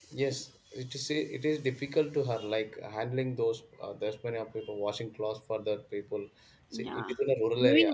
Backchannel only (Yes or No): No